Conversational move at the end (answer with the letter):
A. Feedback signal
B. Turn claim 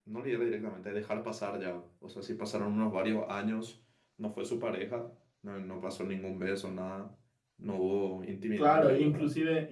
B